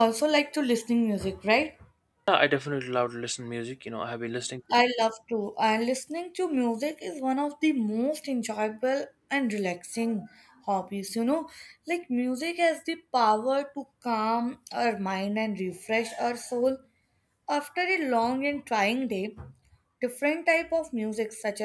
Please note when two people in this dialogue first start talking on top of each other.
none

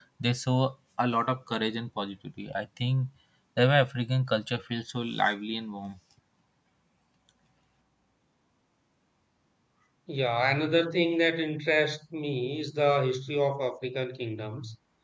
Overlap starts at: none

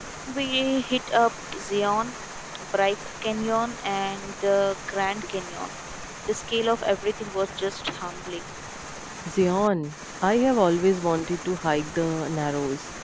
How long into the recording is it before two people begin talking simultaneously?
none

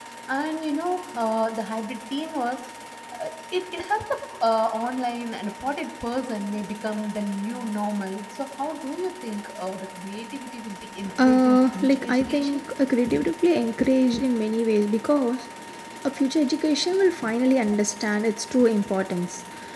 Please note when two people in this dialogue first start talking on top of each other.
11 s

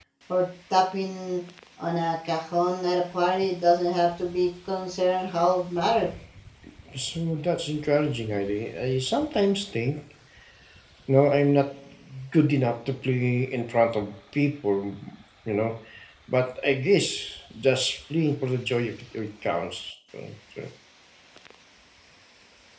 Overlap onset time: none

